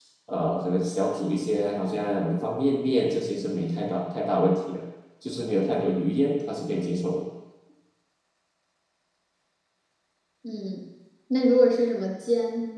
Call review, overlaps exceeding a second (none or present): none